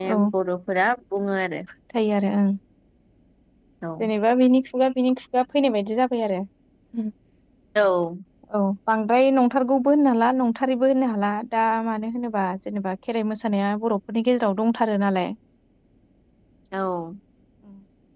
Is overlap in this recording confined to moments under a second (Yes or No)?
Yes